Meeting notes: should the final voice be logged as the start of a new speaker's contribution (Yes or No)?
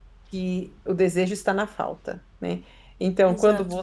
No